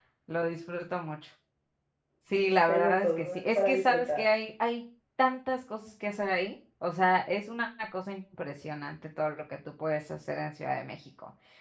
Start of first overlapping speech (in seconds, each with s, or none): 2.7 s